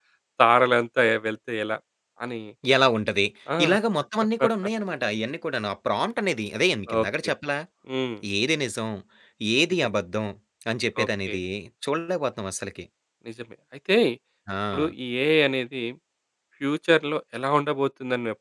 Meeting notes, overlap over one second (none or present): none